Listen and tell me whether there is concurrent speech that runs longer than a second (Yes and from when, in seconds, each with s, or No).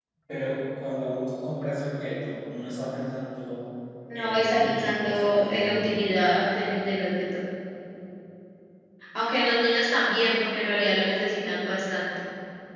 Yes, from 4.2 s